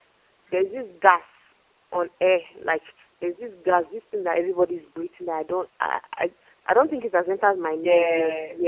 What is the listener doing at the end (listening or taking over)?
listening